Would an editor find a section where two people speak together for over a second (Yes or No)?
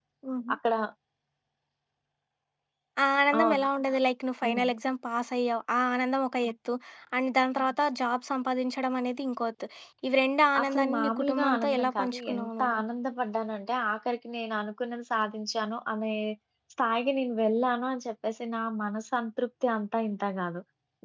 Yes